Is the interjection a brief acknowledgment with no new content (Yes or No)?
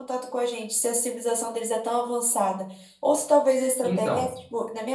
Yes